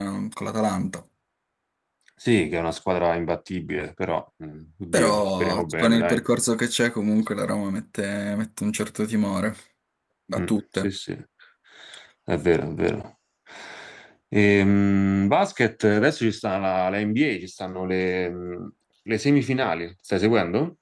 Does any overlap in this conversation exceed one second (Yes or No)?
Yes